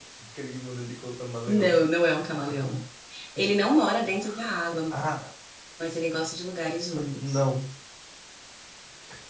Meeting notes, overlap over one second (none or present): none